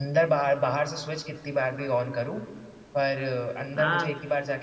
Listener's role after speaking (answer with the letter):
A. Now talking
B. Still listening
B